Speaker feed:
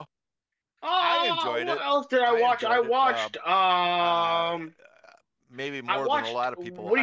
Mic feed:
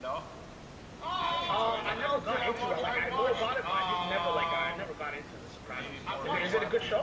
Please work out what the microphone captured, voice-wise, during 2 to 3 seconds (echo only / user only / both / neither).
both